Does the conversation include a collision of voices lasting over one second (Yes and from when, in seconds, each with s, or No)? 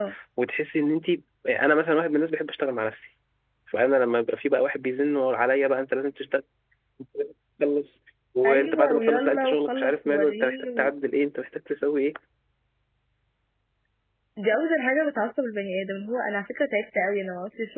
Yes, from 8.4 s